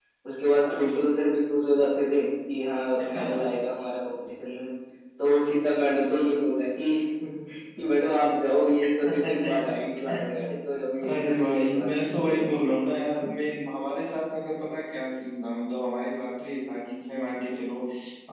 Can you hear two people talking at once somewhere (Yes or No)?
Yes